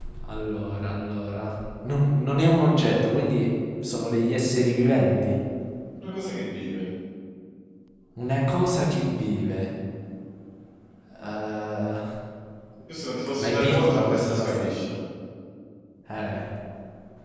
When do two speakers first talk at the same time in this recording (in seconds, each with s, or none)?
13.4 s